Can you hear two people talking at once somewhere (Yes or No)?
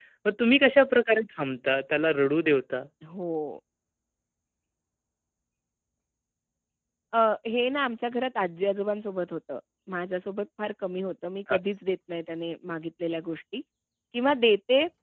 No